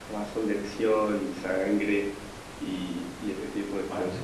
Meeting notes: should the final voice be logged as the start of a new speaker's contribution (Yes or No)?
Yes